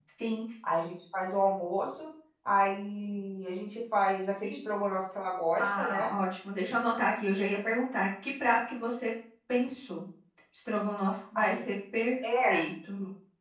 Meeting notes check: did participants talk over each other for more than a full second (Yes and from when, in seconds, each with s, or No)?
No